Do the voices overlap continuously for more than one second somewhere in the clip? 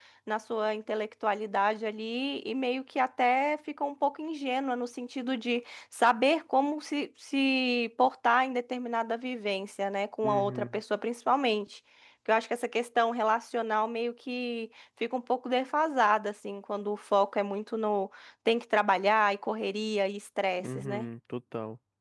No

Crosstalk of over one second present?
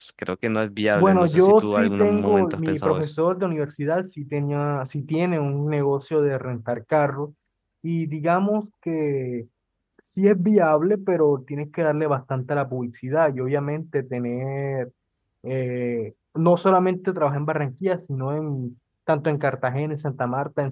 Yes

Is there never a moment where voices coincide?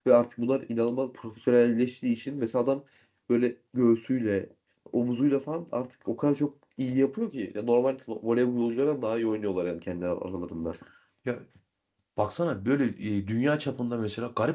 Yes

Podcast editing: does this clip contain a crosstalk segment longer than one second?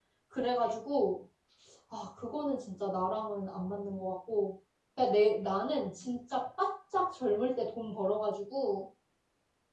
No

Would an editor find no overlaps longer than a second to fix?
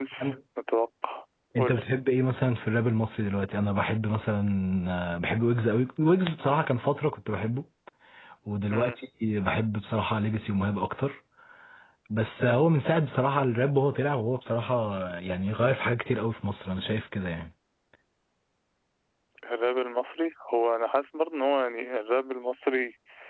Yes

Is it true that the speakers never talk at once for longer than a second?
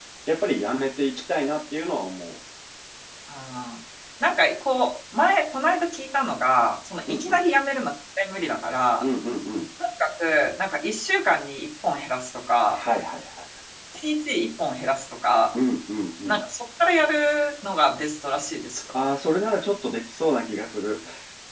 Yes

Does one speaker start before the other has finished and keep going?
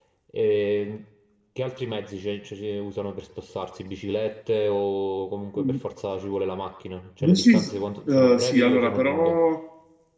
Yes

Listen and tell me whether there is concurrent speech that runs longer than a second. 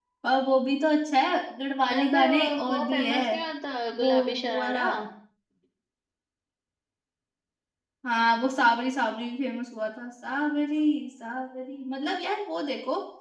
Yes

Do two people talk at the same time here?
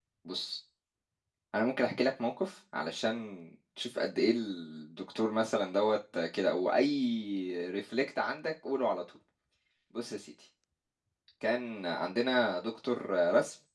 No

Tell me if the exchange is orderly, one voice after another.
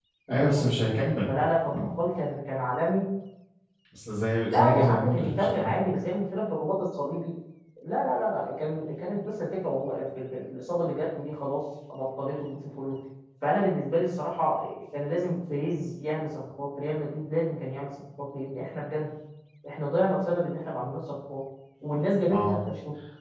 No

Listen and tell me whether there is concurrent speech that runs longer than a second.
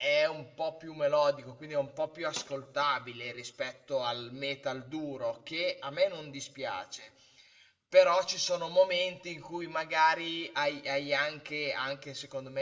No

